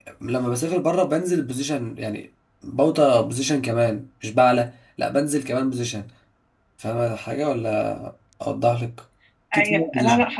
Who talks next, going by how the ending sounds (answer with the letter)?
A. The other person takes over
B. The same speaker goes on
A